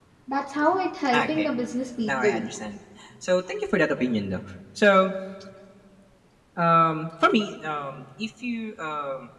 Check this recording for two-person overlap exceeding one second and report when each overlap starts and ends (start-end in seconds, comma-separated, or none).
none